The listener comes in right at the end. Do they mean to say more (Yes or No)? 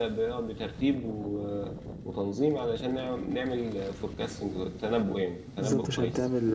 Yes